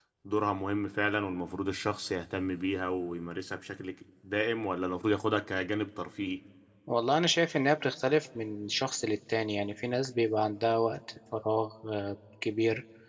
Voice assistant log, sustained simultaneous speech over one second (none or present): none